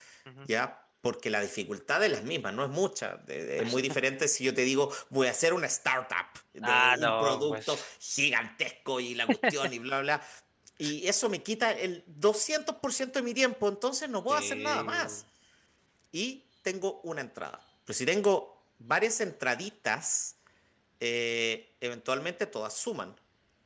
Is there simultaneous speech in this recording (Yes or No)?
Yes